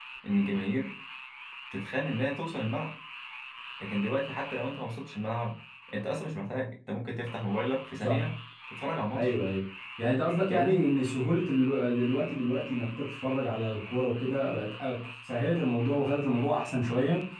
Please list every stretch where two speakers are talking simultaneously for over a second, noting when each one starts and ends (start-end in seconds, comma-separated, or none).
none